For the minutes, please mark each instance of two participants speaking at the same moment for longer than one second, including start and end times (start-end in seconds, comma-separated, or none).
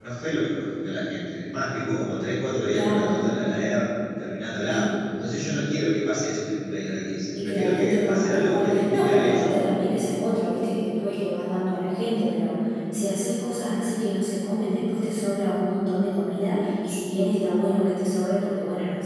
7.4-9.5